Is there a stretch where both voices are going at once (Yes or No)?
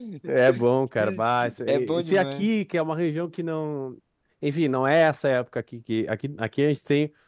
Yes